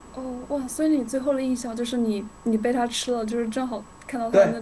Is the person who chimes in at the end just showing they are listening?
No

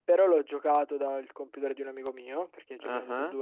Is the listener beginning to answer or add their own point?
No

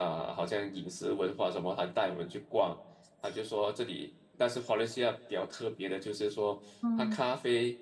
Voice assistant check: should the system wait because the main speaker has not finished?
Yes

